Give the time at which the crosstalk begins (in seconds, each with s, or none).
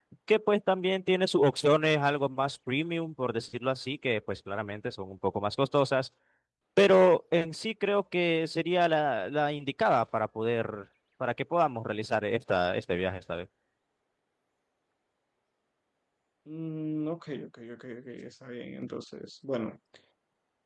none